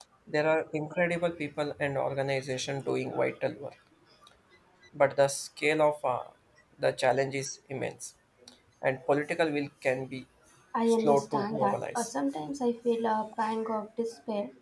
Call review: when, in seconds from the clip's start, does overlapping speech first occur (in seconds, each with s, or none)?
10.9 s